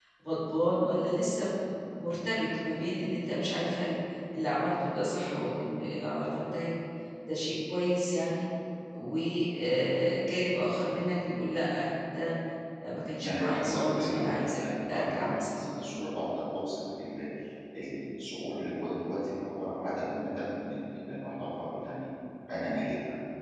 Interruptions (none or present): present